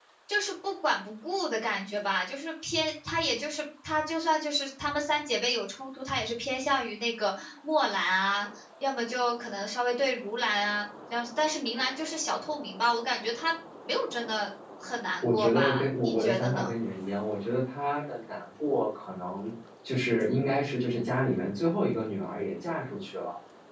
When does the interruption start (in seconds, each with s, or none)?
15.2 s